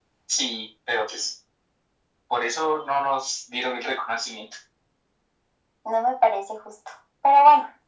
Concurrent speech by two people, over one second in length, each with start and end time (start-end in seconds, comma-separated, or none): none